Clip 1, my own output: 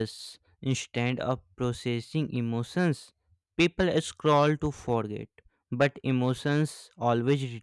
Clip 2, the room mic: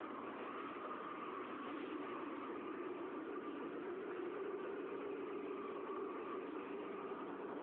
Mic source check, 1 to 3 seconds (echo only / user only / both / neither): neither